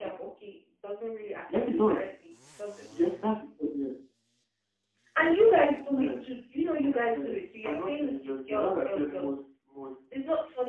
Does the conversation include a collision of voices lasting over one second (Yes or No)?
Yes